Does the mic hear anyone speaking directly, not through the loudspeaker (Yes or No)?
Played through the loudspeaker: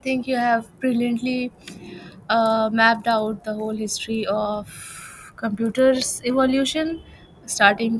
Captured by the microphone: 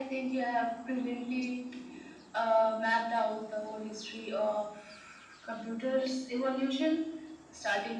No